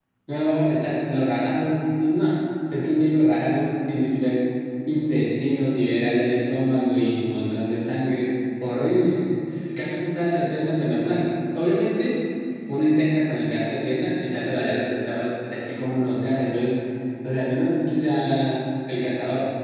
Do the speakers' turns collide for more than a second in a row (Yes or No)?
No